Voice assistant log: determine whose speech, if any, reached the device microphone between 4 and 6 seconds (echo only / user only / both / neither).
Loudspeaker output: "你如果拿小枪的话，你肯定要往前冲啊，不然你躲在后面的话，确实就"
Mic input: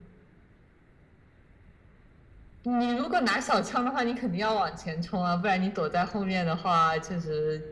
echo only